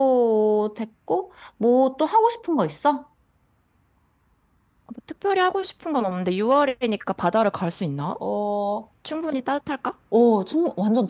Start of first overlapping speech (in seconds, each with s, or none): none